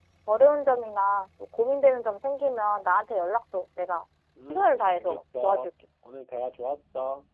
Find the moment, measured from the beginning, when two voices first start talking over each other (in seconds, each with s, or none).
4.5 s